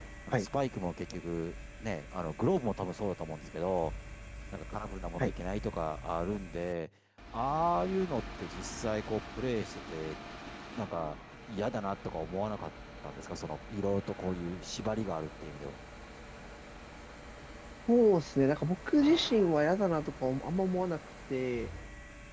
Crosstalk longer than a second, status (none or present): none